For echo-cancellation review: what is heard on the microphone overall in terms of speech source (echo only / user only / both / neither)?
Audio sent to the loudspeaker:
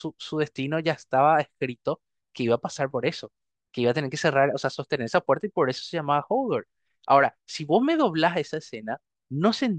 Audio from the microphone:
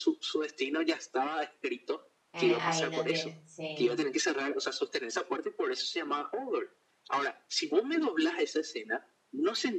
both